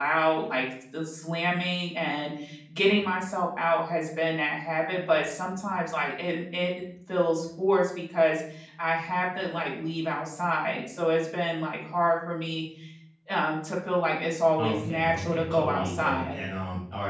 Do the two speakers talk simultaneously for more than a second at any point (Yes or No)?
Yes